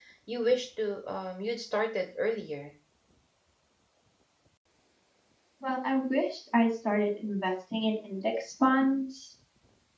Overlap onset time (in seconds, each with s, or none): none